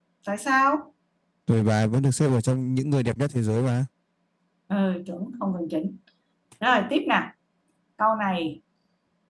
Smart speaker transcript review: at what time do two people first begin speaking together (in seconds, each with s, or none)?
none